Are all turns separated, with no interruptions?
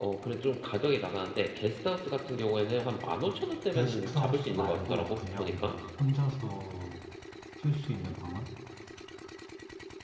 No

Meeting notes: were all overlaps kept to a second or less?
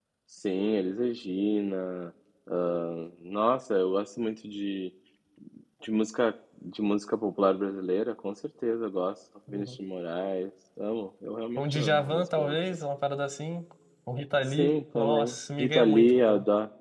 No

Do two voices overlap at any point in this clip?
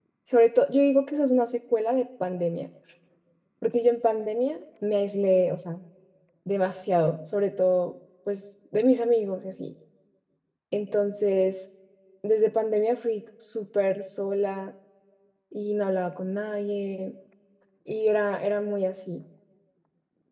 No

